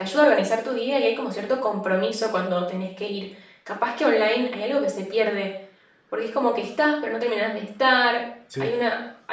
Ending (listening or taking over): listening